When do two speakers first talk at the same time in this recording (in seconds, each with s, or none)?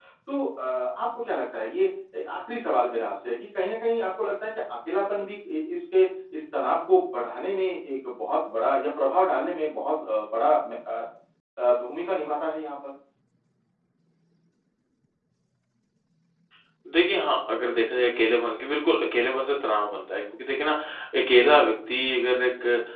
none